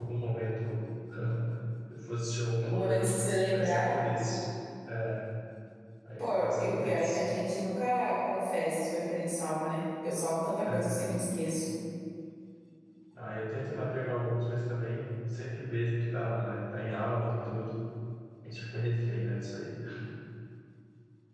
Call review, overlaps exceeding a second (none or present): present